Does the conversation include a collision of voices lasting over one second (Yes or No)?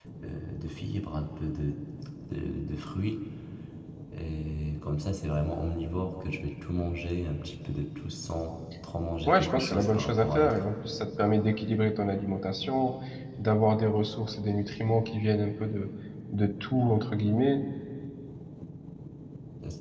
Yes